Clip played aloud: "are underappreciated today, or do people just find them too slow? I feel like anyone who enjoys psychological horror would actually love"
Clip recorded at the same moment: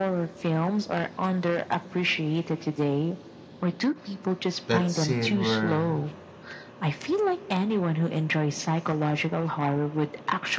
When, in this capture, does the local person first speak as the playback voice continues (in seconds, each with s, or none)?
4.6 s